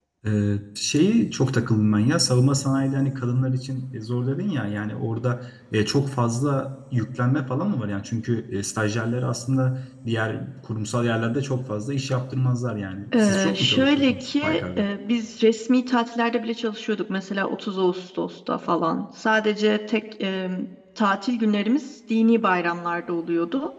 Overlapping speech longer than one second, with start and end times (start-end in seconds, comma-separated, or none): 13.1-14.8